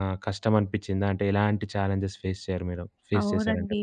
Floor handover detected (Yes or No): Yes